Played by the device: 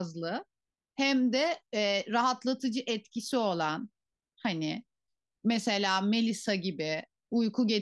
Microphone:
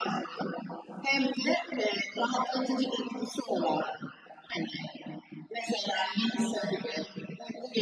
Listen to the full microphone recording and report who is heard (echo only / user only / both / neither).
echo only